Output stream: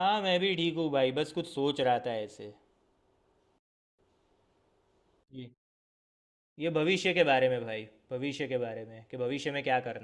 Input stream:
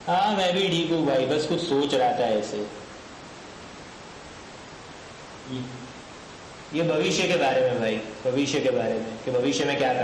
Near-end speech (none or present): none